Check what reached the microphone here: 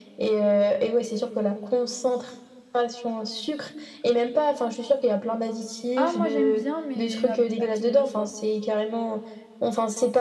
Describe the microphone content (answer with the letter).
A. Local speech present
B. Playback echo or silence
A